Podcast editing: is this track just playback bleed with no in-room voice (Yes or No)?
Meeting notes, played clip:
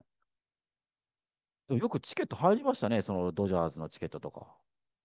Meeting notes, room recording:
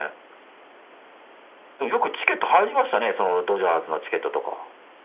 Yes